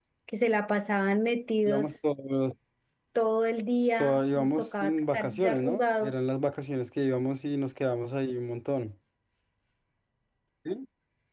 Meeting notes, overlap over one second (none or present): present